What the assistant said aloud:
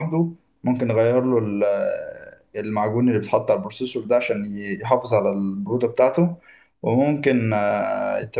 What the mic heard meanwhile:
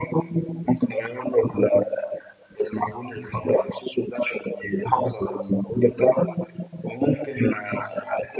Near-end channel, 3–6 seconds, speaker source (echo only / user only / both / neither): echo only